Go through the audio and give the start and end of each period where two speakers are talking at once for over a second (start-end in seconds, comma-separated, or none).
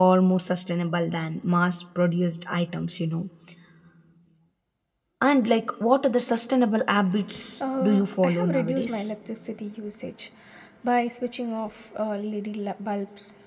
7.8-9.1